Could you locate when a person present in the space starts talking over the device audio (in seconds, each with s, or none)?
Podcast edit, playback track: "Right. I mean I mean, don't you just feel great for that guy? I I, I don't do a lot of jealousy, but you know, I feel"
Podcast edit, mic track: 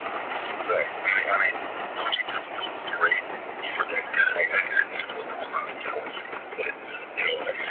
none